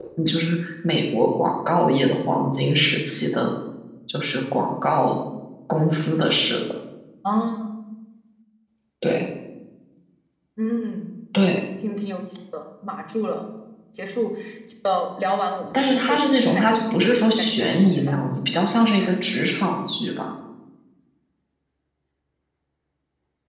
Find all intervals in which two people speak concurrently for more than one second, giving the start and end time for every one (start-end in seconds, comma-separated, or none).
15.8-18.2